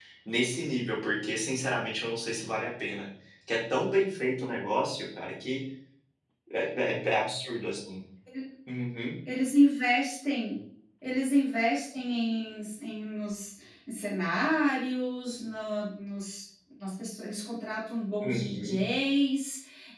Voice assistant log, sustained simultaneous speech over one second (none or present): none